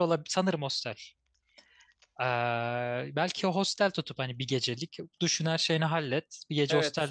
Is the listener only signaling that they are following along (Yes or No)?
No